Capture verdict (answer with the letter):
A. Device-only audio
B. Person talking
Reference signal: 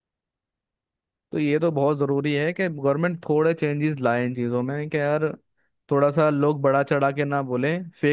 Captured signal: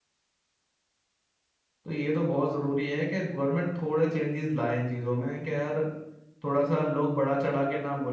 A